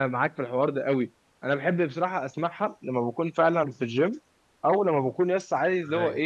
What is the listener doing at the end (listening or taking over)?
listening